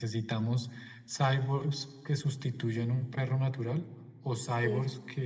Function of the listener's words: listening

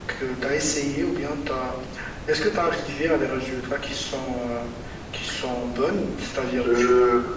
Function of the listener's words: listening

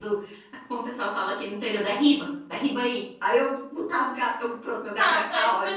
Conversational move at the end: taking over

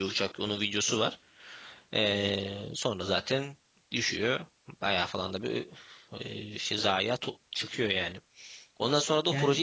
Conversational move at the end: listening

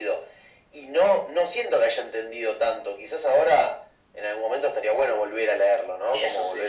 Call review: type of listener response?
listening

